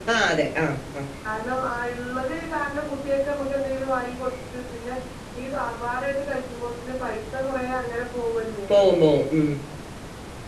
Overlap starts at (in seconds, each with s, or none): none